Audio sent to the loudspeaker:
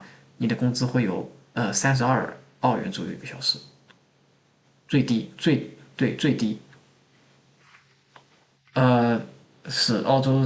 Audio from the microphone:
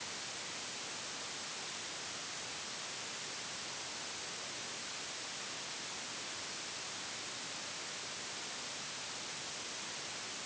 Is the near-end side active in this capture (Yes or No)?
No